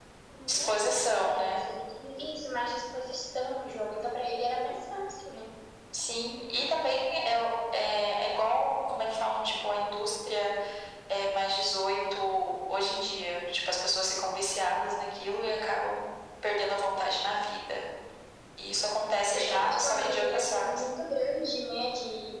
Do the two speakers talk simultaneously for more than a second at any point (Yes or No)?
Yes